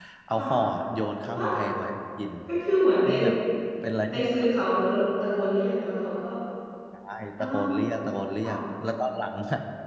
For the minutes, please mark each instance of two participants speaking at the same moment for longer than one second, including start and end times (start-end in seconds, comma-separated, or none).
none